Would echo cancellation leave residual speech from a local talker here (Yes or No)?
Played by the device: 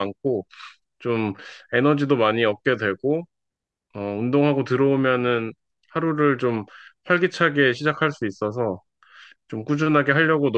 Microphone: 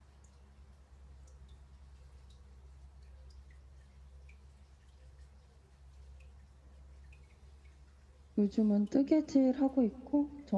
Yes